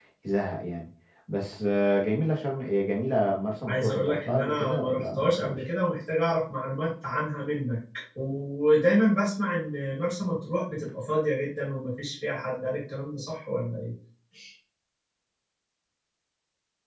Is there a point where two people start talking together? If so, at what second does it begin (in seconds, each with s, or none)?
3.7 s